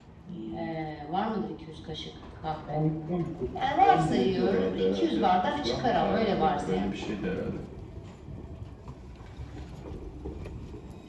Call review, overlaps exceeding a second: present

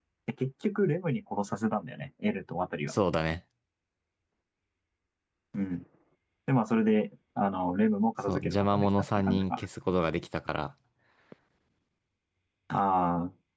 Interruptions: present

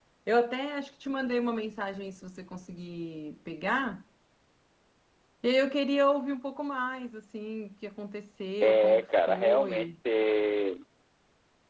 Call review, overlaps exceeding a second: present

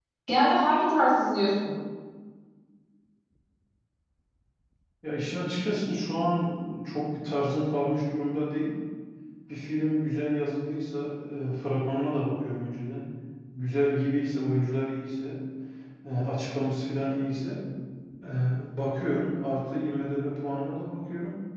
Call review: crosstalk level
none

